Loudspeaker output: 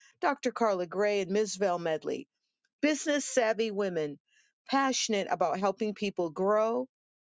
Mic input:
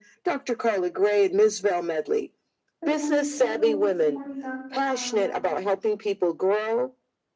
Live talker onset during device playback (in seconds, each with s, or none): 2.8 s